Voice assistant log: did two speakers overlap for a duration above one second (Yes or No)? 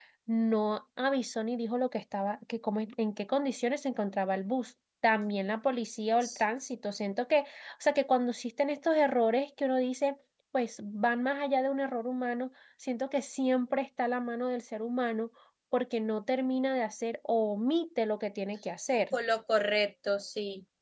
No